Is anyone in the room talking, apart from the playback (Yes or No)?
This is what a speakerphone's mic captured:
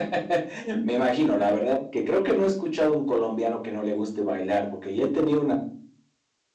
No